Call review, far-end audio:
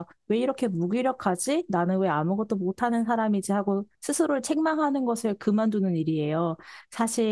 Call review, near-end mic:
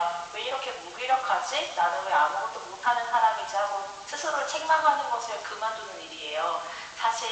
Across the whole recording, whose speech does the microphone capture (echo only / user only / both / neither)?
echo only